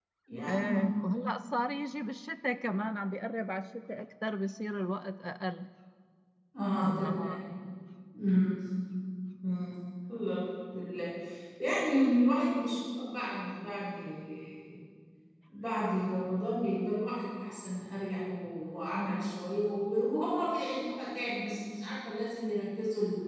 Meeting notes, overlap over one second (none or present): none